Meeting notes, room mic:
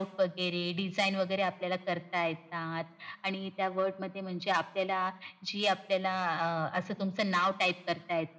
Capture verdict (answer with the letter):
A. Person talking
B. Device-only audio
B